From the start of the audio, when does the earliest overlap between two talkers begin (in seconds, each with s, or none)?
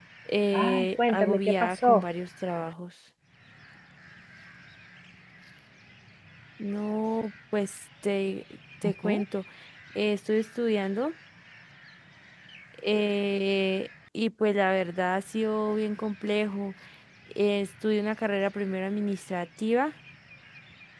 0.5 s